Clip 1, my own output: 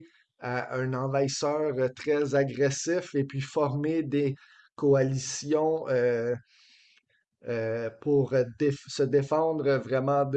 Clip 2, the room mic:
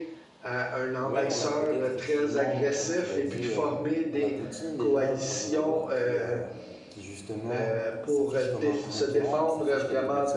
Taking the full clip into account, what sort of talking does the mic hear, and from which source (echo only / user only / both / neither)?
both